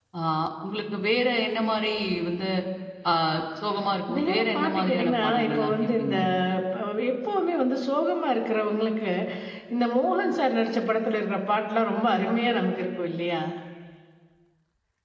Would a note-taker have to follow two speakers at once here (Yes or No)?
Yes